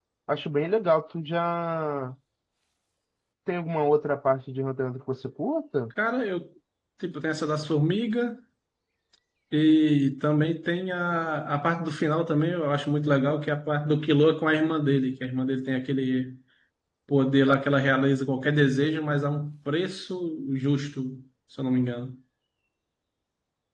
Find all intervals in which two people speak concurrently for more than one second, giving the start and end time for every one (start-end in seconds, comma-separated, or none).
none